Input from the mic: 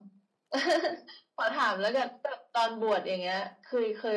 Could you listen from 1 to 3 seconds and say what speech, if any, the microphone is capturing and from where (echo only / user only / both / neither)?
echo only